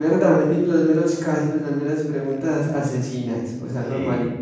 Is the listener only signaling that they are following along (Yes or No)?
No